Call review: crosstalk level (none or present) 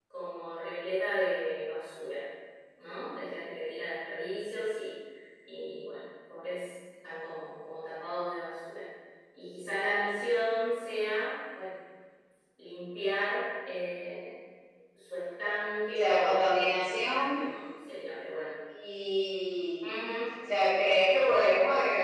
present